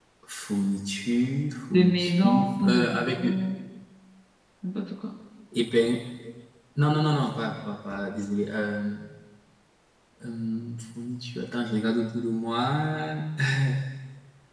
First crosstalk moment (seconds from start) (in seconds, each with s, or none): 1.7 s